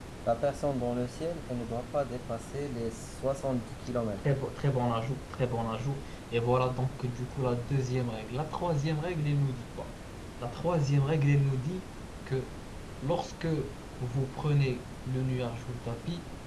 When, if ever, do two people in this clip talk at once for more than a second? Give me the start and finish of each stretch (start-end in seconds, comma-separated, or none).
none